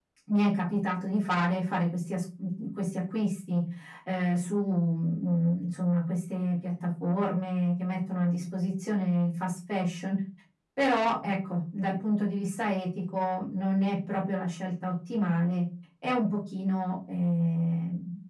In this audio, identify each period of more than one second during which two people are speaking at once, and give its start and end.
none

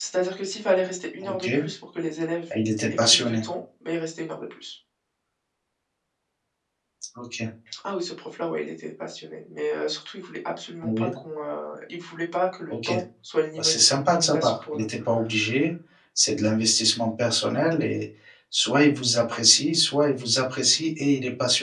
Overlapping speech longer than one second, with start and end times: 13.6-14.8

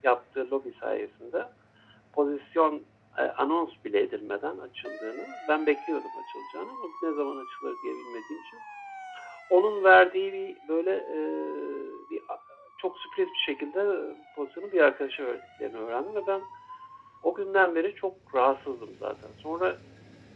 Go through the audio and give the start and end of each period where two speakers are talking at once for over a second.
none

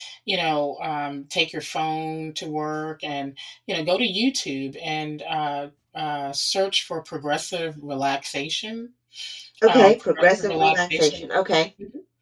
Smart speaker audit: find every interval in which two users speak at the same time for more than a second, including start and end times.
9.7-11.3

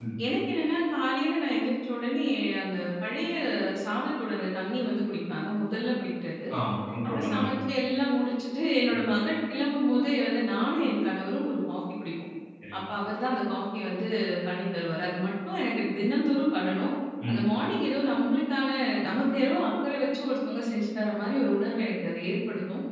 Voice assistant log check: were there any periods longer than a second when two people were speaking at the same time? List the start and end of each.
none

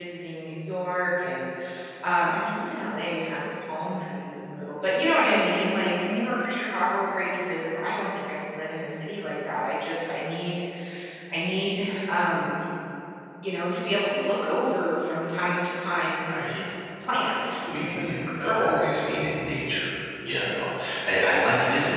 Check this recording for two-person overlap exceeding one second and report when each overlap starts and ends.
17.5-19.1

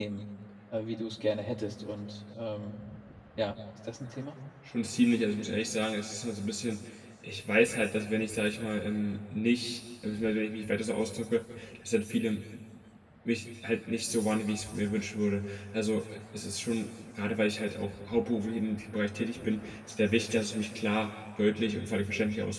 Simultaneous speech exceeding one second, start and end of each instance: none

